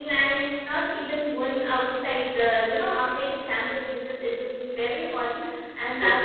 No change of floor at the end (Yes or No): No